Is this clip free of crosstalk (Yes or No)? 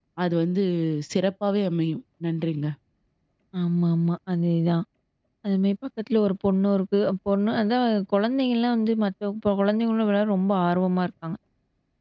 Yes